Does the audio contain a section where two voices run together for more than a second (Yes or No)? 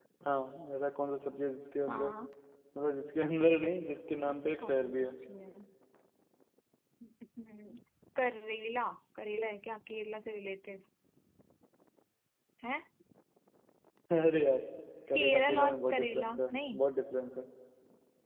Yes